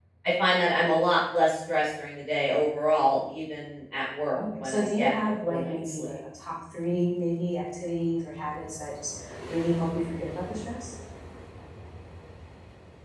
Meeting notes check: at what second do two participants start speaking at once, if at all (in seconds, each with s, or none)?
4.3 s